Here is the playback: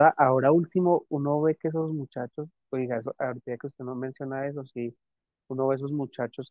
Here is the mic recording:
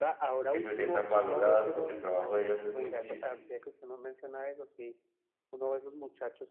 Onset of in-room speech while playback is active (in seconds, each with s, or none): 0.5 s